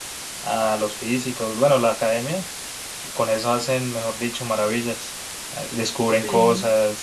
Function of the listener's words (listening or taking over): listening